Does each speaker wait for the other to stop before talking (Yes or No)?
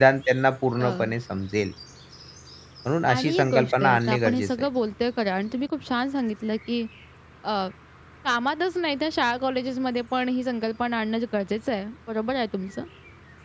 No